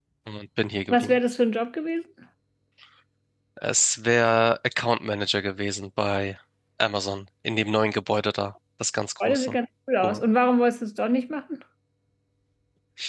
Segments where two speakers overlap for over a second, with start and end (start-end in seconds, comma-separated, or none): none